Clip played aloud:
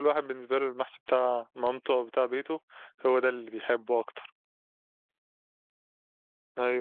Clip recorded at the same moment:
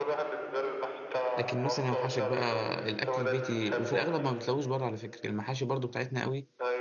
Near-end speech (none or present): present